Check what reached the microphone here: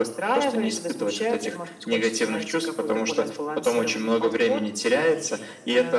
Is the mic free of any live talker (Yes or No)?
Yes